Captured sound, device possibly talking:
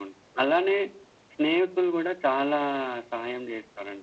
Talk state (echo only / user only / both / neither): echo only